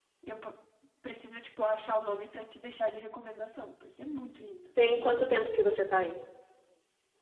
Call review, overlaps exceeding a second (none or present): none